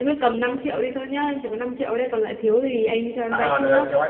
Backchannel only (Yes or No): No